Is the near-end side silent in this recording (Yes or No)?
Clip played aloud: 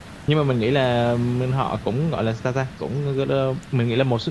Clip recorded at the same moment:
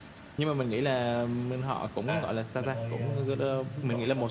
No